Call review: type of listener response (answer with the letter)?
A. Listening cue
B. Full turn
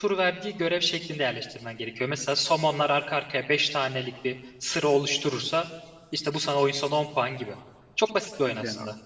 B